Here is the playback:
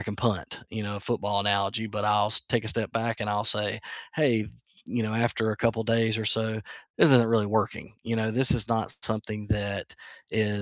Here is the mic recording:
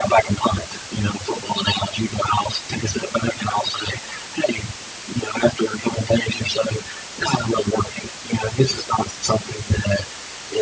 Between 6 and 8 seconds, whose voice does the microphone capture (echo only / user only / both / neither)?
echo only